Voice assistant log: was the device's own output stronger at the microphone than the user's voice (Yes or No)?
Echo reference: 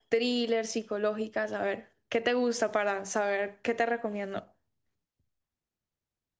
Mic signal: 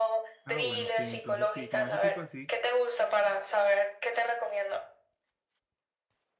Yes